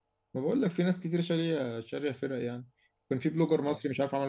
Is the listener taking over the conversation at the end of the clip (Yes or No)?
No